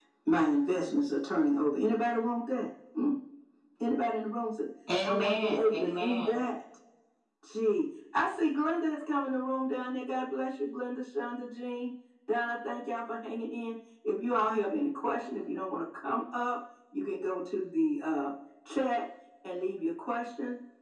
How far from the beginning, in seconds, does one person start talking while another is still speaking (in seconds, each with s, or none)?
4.9 s